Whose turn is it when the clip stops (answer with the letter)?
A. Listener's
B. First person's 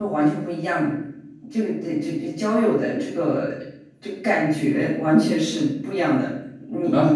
A